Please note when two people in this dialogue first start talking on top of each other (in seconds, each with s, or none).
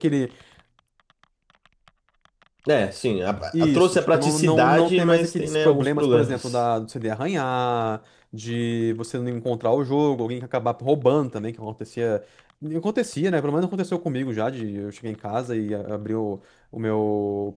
3.5 s